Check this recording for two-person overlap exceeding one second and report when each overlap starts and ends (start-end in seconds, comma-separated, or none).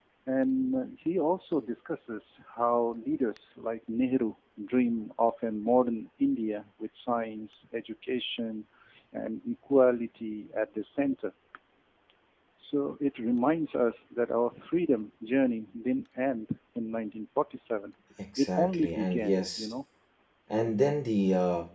18.4-19.7